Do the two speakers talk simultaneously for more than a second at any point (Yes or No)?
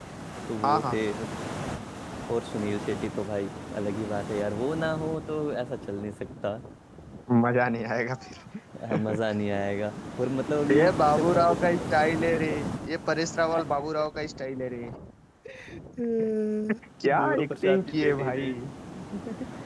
Yes